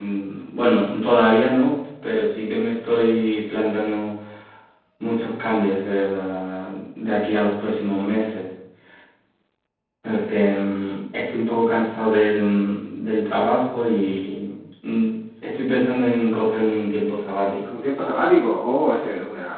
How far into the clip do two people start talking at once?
none

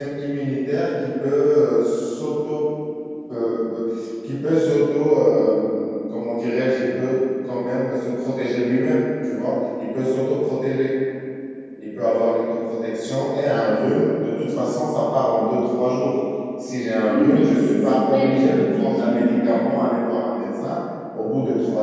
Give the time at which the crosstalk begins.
17 s

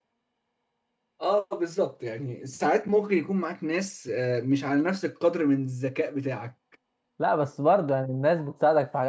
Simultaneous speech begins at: none

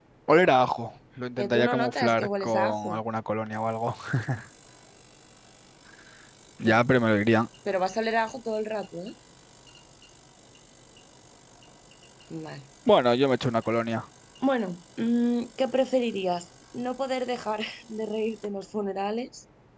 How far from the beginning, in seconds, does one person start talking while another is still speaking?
1 s

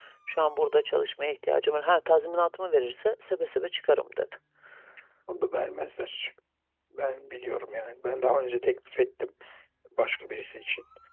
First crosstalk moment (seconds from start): none

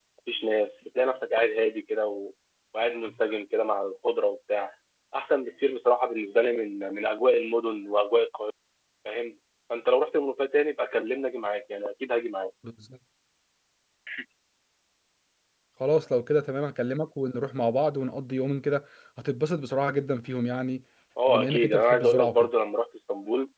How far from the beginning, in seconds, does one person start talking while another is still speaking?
21 s

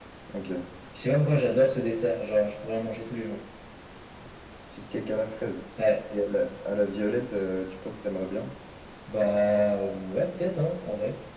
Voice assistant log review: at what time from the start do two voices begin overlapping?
none

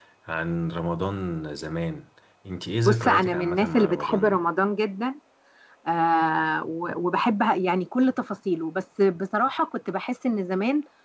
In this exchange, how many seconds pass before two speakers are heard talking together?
3 s

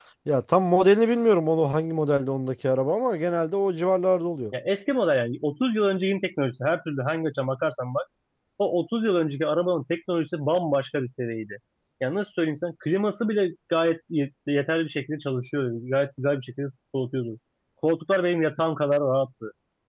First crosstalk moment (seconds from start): none

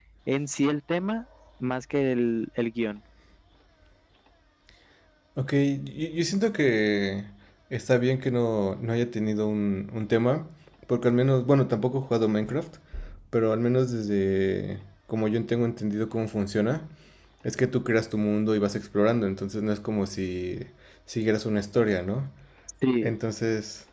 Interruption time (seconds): none

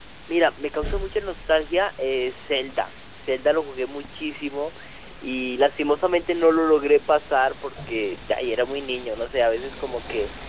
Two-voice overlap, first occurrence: none

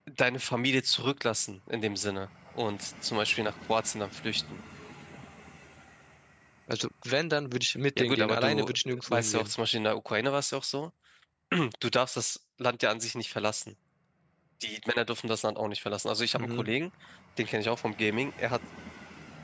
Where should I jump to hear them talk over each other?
8 s

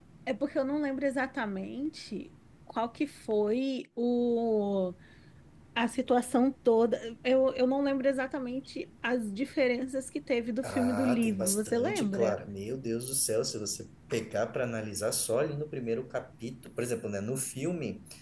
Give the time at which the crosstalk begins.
11 s

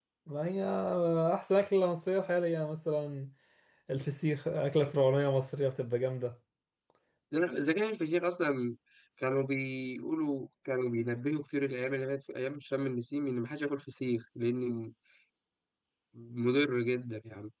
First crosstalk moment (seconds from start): none

